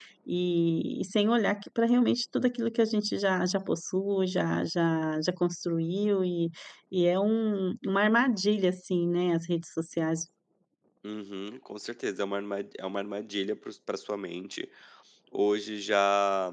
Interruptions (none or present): none